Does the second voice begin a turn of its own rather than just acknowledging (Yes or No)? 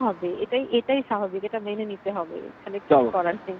Yes